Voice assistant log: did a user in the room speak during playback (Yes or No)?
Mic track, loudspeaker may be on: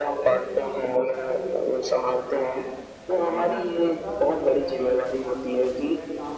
Yes